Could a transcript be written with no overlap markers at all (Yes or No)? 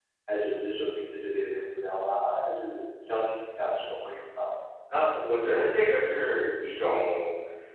Yes